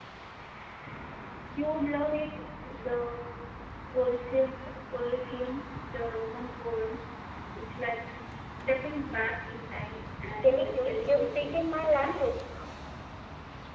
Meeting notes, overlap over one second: present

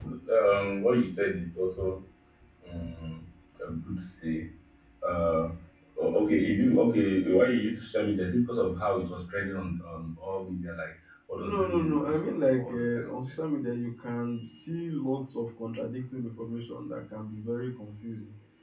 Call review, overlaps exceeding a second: present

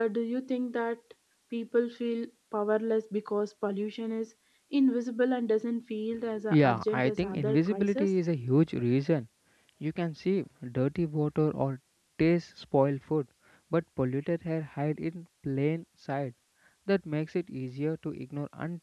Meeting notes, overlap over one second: present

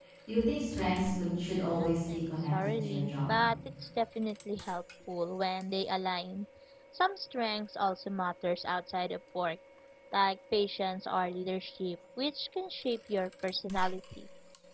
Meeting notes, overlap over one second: present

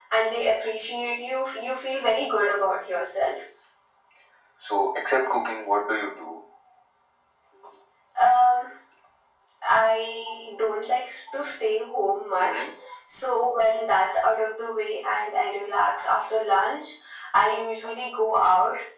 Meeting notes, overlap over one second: none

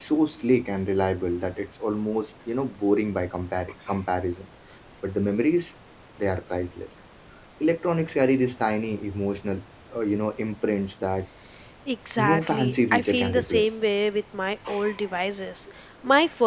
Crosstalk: present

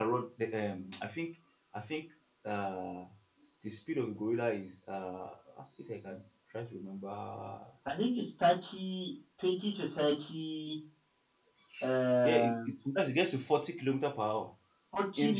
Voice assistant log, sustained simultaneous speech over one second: none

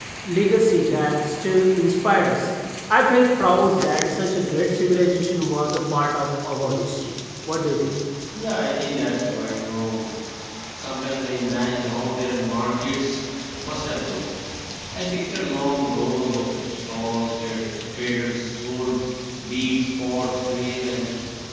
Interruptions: none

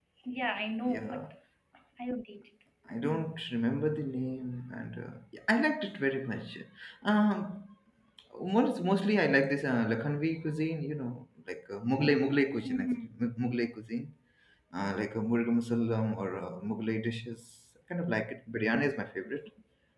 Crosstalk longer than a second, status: none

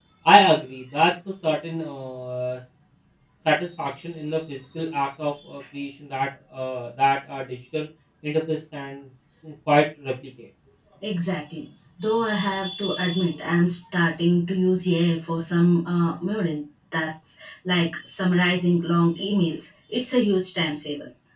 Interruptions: none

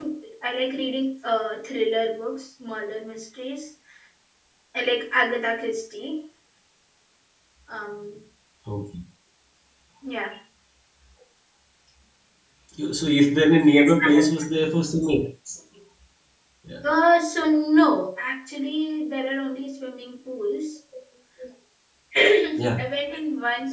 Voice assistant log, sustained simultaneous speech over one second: none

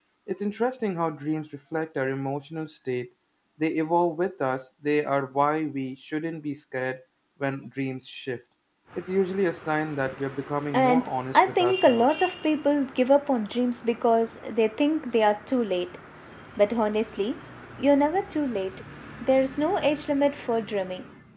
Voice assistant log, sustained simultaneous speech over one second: present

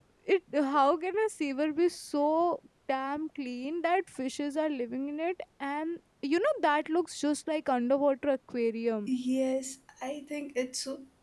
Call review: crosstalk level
none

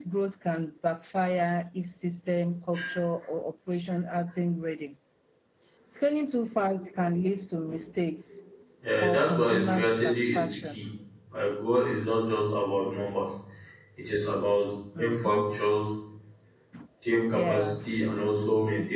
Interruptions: present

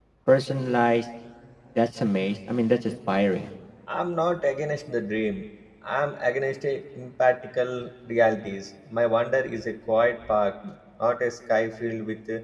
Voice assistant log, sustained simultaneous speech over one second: none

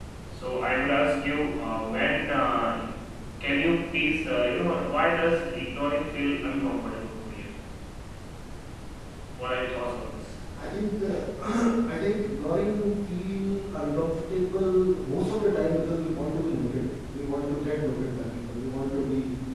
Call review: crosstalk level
none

